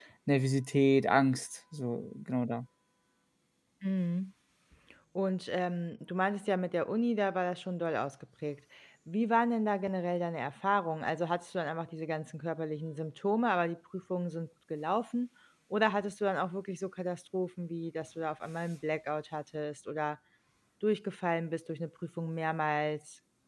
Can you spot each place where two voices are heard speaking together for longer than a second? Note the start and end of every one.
none

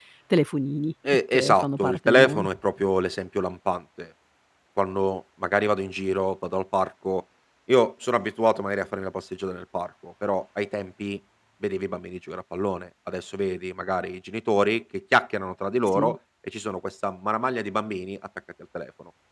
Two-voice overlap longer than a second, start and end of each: 1.1-2.5

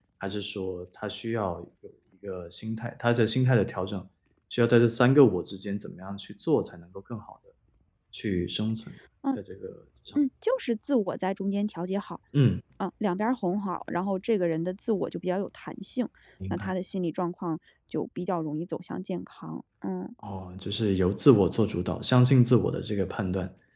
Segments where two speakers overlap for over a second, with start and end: none

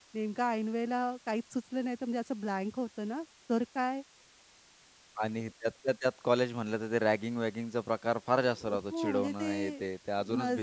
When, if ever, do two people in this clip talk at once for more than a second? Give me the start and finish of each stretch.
8.4-9.8

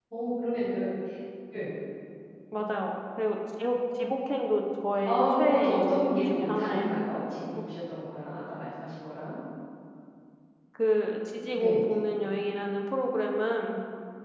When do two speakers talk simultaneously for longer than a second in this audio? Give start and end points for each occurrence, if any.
5.0-7.1

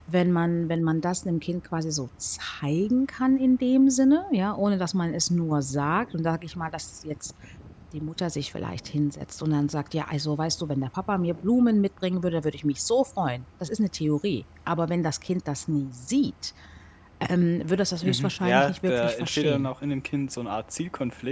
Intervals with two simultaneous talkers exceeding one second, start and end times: 18.0-19.7

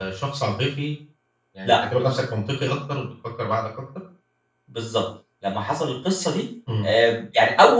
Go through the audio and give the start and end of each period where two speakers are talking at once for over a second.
none

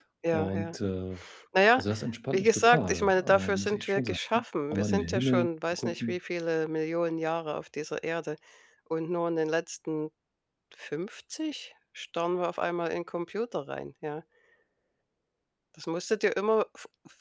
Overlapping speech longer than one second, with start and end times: 2.3-4.2, 4.7-6.2

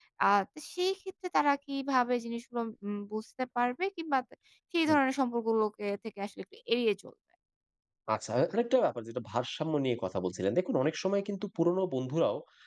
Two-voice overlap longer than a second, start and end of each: none

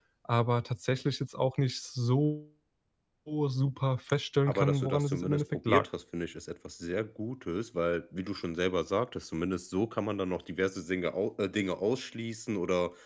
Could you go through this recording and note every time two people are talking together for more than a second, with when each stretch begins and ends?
4.5-5.8

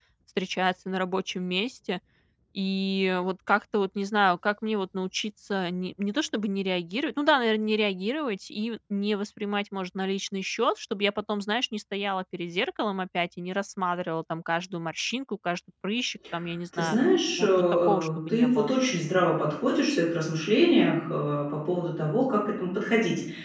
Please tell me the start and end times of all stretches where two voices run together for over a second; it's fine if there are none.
17.4-18.7

